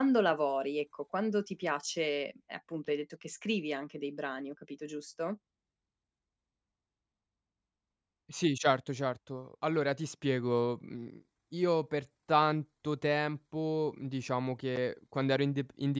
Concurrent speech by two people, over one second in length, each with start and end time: none

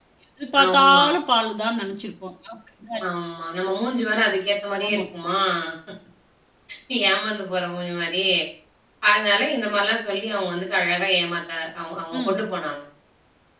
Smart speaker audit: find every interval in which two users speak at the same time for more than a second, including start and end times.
none

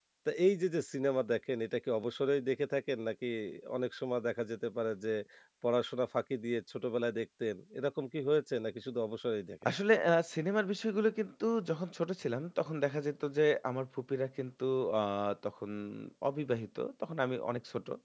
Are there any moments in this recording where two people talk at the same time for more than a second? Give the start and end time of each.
none

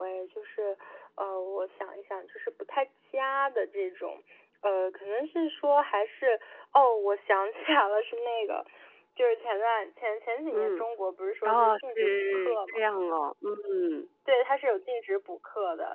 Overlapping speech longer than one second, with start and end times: 11.4-12.8

